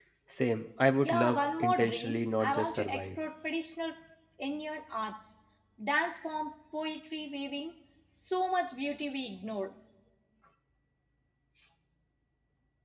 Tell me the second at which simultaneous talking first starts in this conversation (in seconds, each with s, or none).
1.0 s